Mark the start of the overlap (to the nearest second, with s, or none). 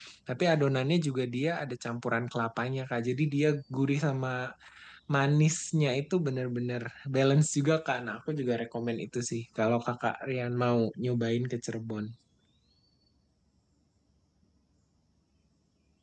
none